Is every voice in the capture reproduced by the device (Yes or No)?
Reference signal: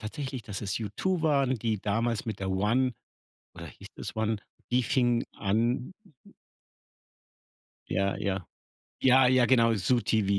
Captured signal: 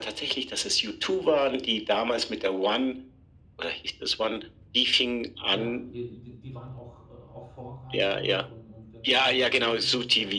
No